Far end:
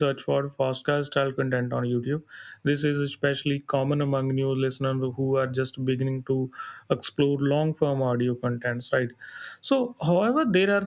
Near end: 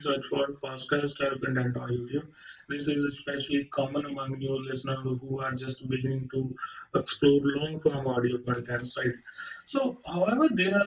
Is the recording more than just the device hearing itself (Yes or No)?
No